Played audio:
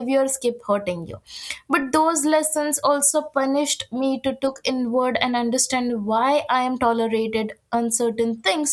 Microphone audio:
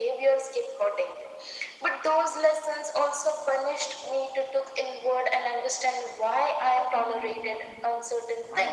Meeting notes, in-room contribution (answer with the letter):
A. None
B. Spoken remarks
B